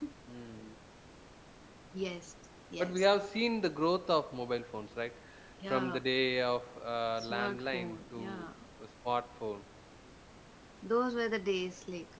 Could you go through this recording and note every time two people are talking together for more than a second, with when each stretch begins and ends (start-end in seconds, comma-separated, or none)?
7.2-8.5